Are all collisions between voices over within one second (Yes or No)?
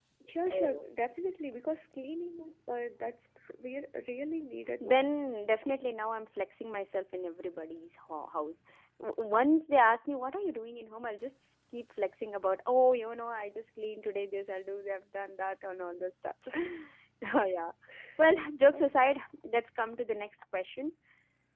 Yes